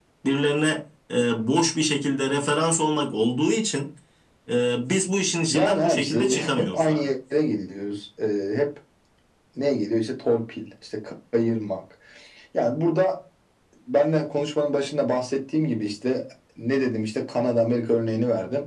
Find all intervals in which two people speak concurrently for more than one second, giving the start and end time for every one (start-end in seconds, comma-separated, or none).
5.5-7.1